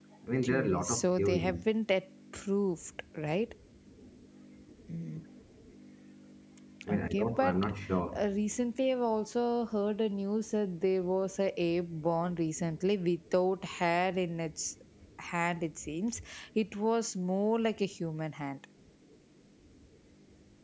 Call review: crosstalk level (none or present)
present